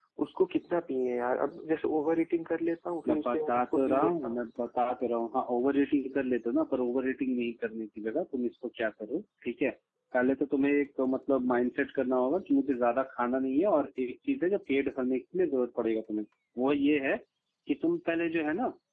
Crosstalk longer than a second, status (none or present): present